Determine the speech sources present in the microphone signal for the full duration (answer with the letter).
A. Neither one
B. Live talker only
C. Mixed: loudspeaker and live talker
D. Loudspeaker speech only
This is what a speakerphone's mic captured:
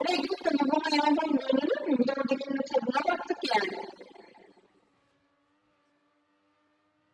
D